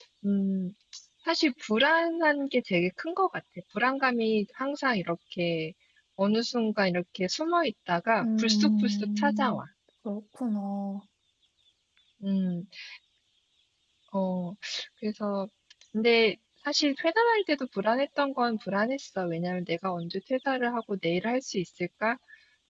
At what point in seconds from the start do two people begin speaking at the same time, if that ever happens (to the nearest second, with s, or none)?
8 s